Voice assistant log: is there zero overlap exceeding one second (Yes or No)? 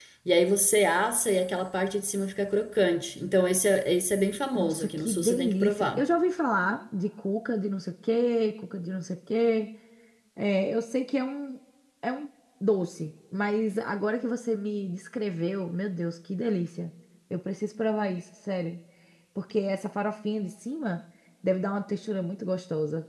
No